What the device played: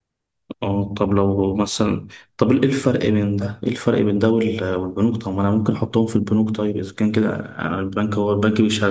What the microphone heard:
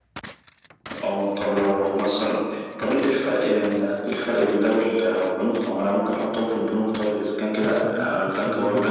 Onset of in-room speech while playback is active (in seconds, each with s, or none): 7.1 s